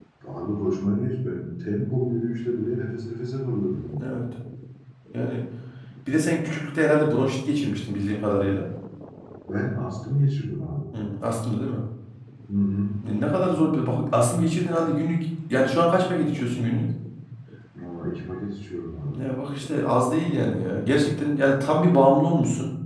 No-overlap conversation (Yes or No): Yes